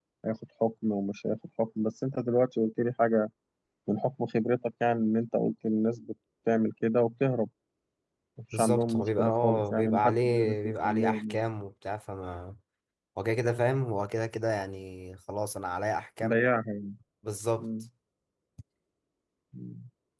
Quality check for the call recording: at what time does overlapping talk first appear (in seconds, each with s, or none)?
8.5 s